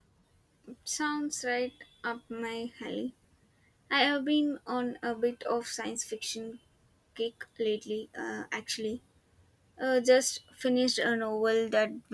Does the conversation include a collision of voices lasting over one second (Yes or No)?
No